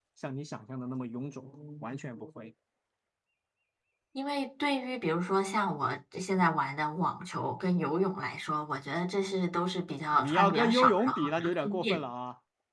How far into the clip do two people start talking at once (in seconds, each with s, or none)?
10.1 s